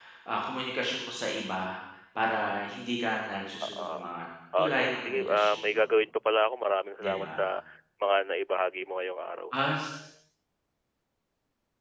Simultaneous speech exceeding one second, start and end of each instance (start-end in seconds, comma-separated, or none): 4.6-5.8